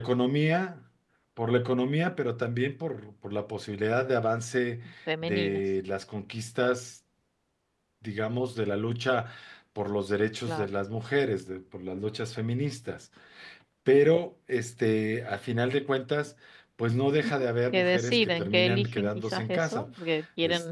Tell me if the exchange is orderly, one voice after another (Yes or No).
No